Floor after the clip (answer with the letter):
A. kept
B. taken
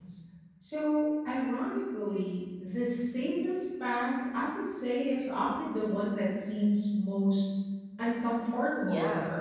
B